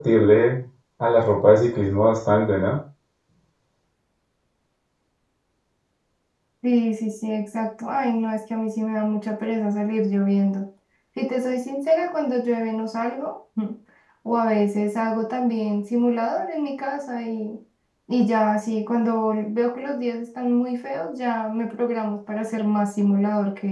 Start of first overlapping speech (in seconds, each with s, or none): none